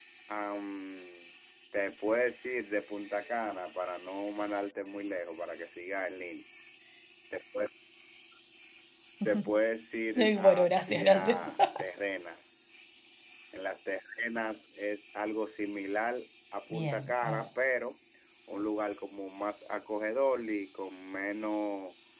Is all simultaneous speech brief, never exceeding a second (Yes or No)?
No